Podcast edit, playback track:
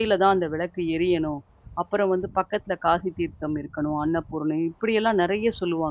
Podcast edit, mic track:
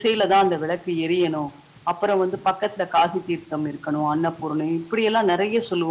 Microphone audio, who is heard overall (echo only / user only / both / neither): echo only